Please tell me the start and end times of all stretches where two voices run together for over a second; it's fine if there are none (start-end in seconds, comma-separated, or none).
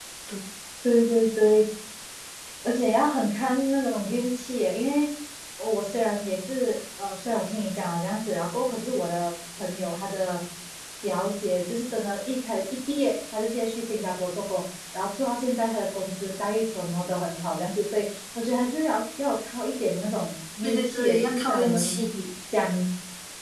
20.6-22.0